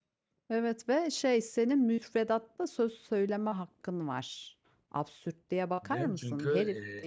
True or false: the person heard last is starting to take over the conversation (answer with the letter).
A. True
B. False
A